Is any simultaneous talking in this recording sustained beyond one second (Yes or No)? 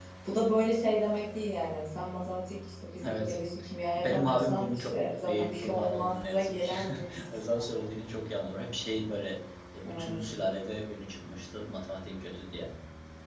Yes